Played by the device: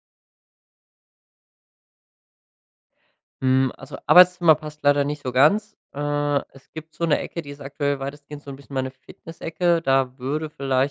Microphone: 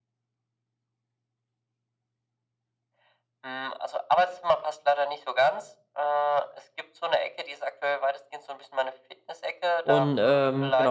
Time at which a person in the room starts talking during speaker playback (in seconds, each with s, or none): 9.8 s